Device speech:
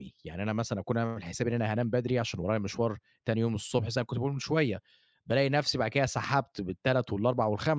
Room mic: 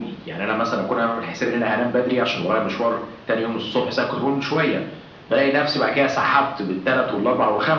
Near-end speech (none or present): none